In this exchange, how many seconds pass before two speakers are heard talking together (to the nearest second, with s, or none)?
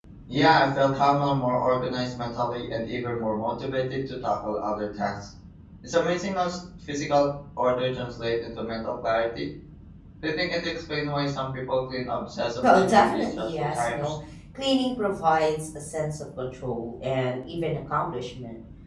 13 s